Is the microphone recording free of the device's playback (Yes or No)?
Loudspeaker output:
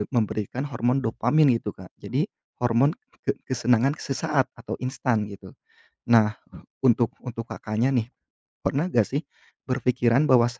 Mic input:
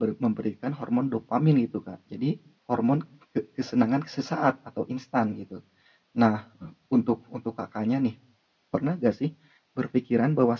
No